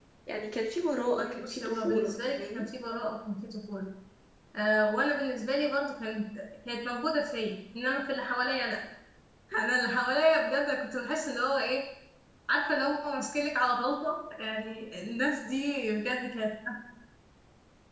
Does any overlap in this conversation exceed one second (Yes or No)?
Yes